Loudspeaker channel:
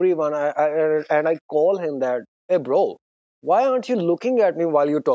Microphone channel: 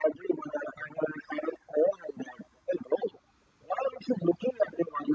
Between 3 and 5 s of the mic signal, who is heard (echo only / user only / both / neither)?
echo only